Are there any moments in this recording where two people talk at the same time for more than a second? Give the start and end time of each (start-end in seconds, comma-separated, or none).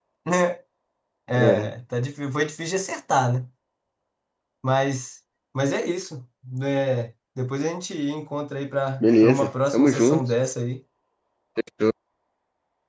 9.0-10.3